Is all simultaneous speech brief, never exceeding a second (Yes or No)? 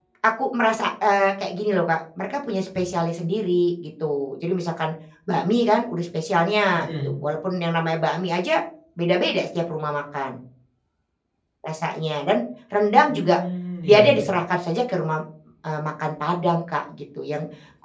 Yes